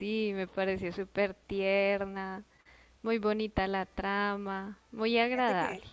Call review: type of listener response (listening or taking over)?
taking over